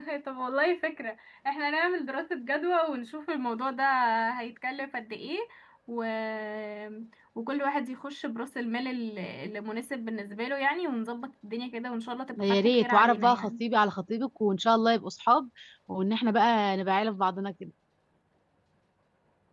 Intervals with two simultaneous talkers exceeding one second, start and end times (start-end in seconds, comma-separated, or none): 12.4-13.6